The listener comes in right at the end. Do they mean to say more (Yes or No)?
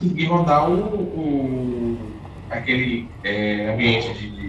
No